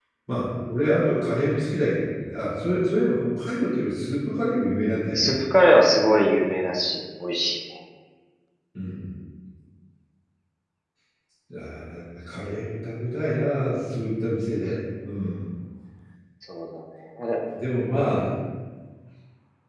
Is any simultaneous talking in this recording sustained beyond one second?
No

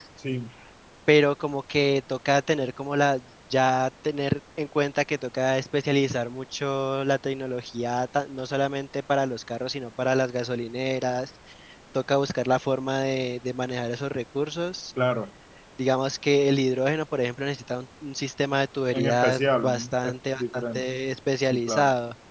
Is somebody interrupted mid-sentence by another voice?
Yes, from 18.9 s

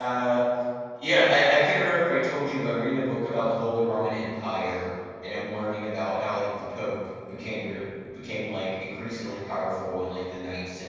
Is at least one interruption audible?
No

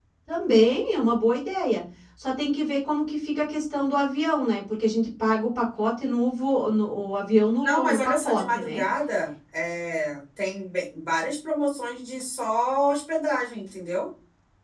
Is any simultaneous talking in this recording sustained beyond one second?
Yes, from 7.6 s

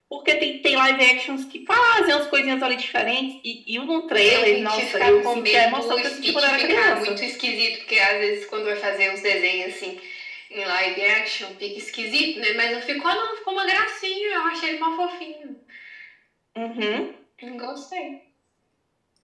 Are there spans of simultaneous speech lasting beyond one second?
Yes, from 4.2 s

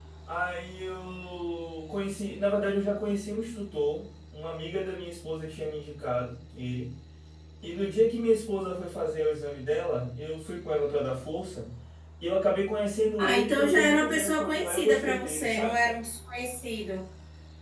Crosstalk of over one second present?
Yes, from 13.2 s

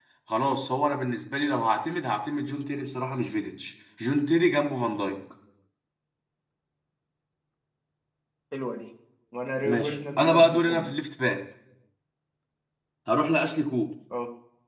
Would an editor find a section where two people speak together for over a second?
Yes, from 9.6 s

